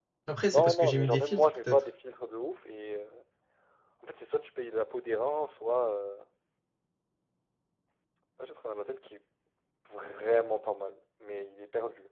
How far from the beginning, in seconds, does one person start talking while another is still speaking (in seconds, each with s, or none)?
0.5 s